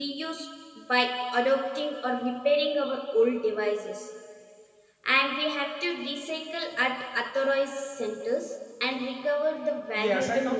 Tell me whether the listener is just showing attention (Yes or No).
No